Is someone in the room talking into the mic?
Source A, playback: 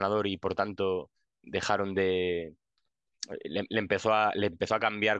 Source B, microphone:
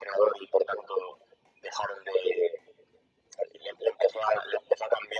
No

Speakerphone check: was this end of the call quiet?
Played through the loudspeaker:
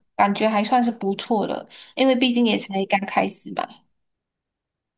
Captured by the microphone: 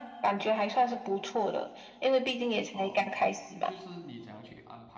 No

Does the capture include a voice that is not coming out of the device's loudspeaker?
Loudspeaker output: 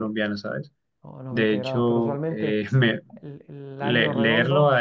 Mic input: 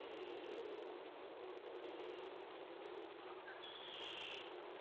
No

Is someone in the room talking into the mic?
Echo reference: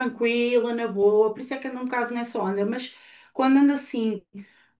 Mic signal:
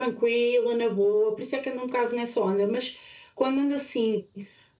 No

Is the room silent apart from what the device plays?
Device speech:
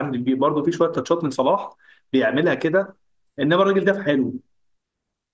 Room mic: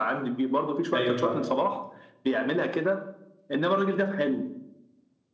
No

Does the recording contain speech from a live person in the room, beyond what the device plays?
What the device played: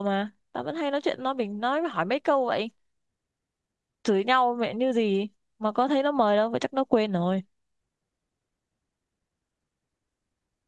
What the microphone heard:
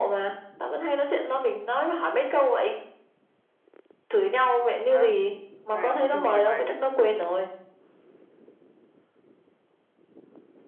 Yes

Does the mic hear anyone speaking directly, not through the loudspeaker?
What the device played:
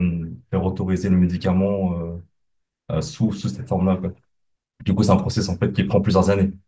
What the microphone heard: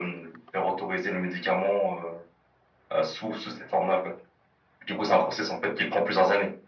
No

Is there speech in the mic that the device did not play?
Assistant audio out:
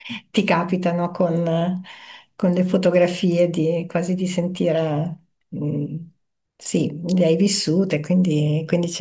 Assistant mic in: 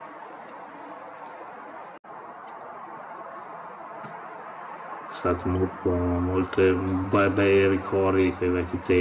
Yes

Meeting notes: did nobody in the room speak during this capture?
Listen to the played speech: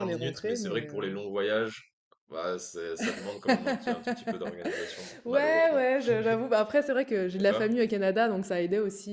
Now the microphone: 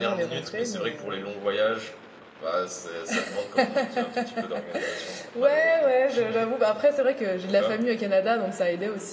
Yes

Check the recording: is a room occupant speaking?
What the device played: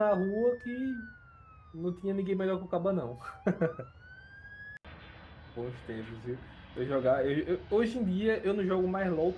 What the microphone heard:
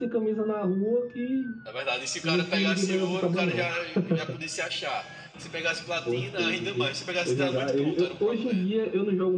Yes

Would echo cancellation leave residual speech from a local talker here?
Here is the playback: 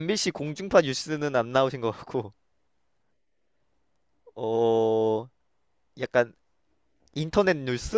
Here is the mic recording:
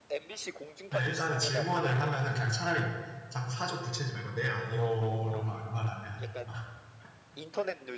Yes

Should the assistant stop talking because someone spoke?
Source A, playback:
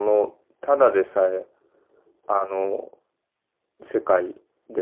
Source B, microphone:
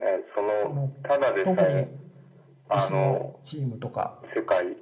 Yes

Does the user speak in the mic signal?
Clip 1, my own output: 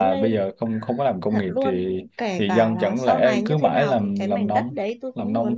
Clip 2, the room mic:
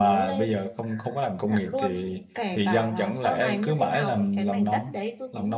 No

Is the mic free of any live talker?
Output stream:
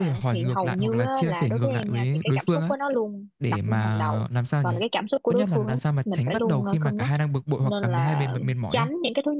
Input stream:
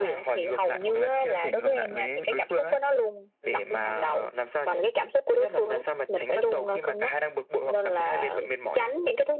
Yes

